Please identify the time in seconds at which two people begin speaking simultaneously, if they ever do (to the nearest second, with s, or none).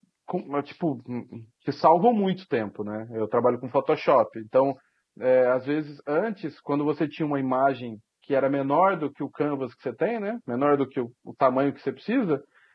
none